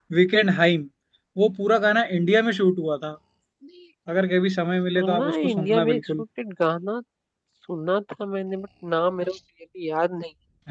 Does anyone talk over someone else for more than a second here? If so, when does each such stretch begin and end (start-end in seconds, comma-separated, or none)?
5.0-6.2